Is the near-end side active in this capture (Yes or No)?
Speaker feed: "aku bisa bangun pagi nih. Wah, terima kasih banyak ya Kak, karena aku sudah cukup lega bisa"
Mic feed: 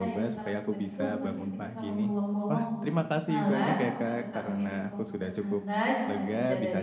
Yes